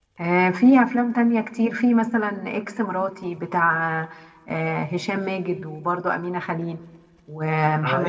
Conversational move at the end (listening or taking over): taking over